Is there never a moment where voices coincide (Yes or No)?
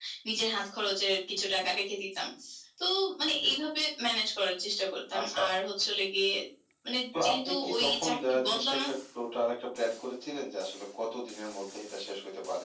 No